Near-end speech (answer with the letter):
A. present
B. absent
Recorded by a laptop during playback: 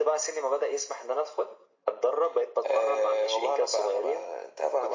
B